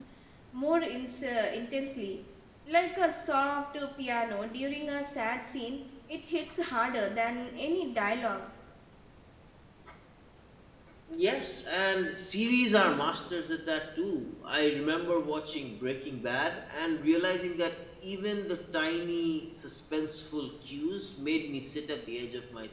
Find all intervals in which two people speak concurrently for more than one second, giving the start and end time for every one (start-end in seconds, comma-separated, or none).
none